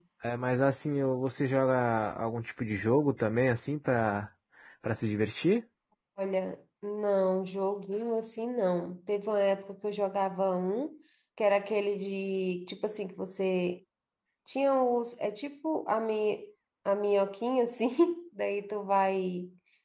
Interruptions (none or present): none